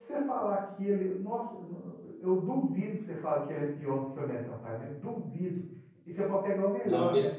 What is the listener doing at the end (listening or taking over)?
listening